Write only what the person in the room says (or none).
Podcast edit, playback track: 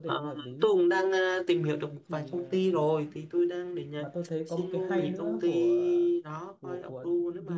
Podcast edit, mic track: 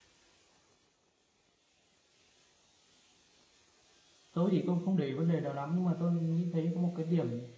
tôi thì không không để ý vấn đề đó lắm nhưng mà tôi nghĩ thấy có một cái điểm